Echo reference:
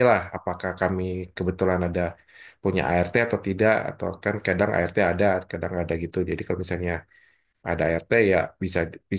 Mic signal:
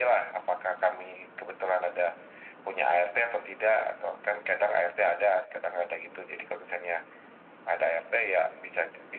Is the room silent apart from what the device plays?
Yes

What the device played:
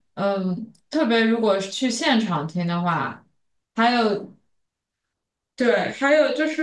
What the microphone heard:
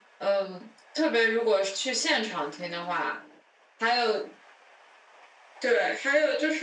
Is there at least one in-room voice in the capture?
No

